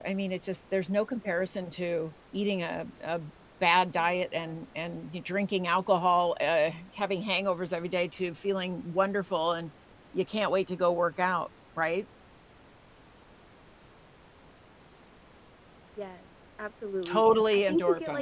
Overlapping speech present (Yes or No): Yes